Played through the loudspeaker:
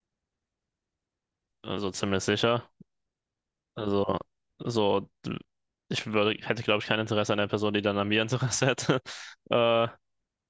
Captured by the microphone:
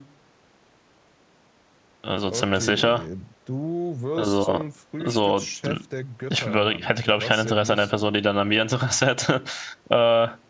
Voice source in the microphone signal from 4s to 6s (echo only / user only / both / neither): both